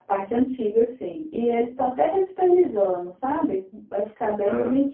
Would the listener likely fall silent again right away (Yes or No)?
Yes